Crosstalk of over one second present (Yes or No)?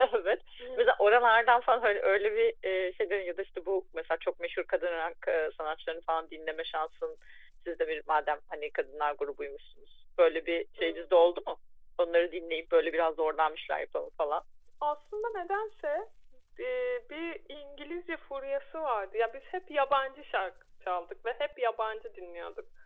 No